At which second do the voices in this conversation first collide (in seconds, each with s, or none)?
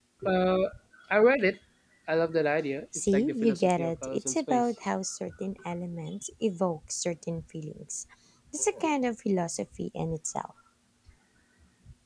3.0 s